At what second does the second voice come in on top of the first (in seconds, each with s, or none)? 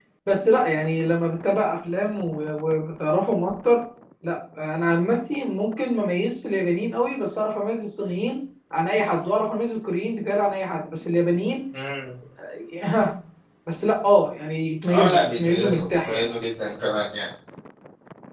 14.9 s